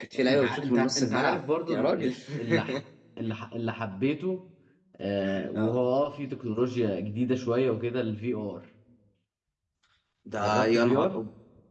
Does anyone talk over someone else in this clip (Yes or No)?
Yes